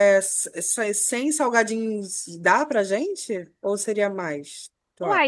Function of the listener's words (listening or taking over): taking over